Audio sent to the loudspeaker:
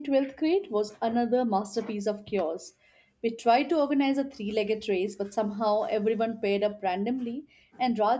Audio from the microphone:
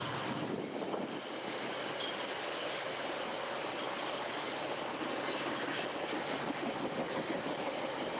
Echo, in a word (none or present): none